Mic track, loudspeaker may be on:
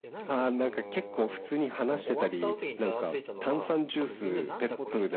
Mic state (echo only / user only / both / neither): both